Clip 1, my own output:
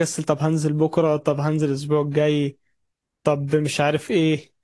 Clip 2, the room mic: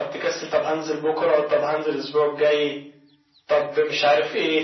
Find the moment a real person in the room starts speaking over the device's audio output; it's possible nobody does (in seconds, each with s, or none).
none